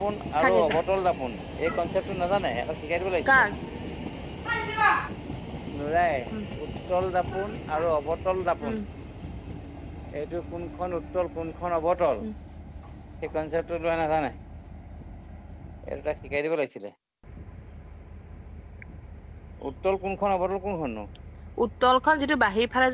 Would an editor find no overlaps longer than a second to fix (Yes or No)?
Yes